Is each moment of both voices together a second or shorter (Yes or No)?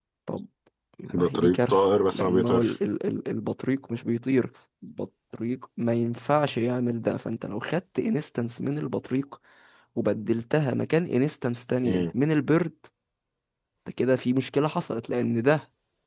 No